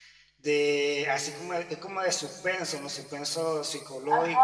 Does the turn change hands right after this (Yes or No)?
Yes